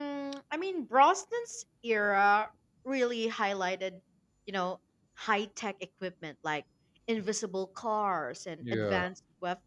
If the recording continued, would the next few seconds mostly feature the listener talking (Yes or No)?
No